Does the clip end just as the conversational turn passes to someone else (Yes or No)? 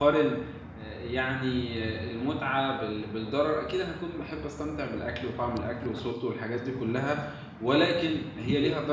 No